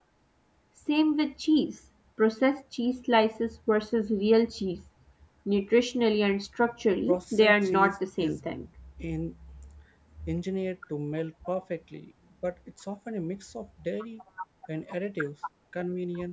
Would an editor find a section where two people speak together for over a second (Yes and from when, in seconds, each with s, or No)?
Yes, from 7.1 s